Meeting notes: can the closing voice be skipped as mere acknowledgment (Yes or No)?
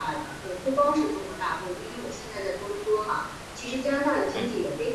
Yes